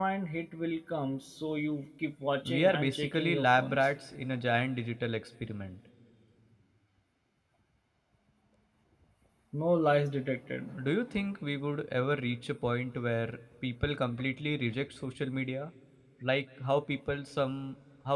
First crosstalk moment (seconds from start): 2.4 s

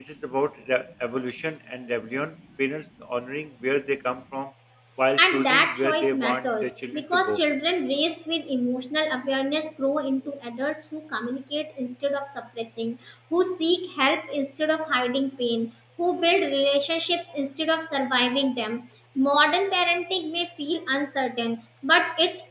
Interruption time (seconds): 5.2 s

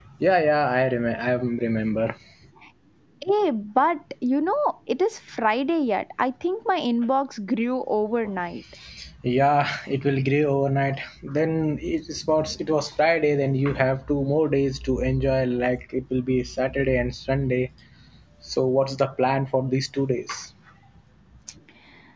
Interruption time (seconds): none

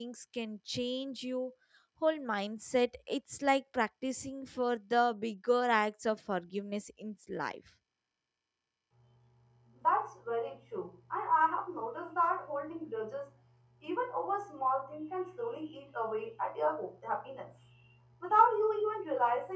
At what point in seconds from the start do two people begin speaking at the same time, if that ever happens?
none

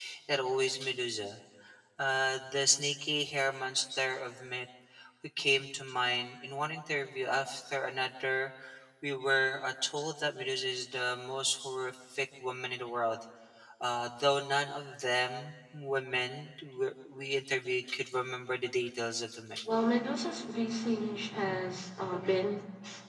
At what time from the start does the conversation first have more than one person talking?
none

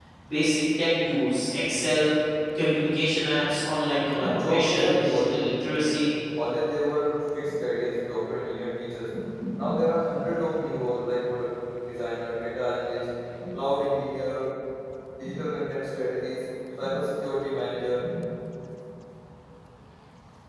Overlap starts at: 4.2 s

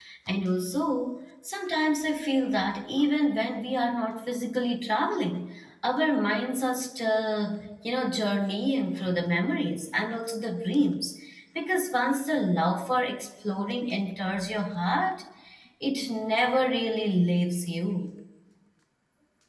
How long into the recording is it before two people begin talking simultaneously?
none

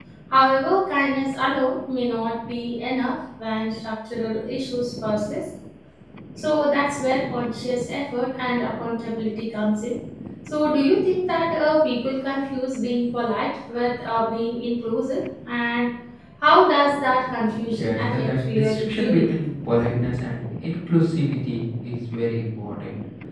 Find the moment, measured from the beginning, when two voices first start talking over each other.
17.7 s

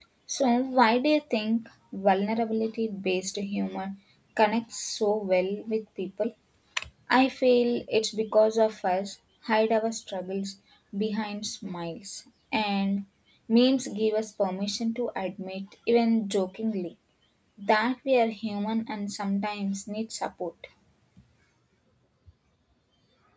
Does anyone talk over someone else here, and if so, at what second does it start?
none

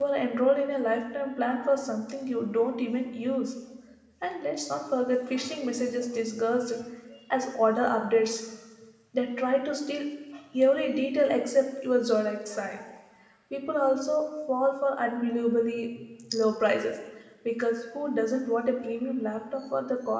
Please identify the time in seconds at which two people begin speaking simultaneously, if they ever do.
none

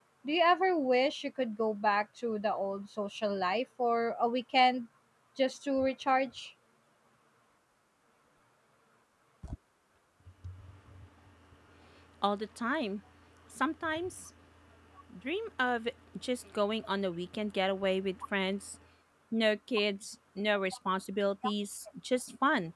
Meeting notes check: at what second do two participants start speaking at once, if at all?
none

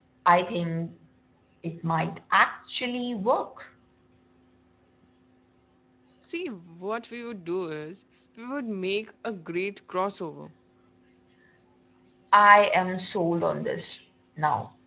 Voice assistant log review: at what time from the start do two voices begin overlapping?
none

